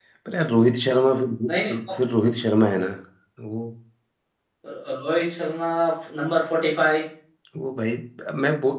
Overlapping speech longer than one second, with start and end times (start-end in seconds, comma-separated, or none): none